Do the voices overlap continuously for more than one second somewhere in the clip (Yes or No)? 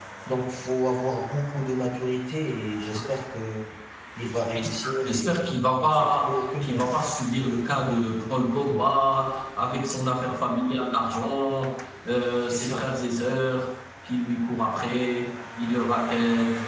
Yes